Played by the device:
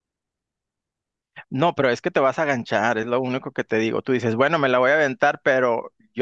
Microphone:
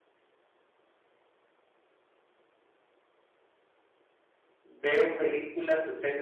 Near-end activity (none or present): present